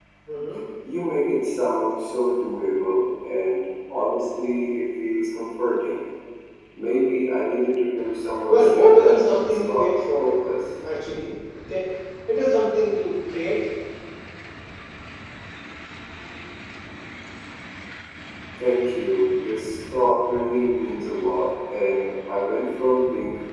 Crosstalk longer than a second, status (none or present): present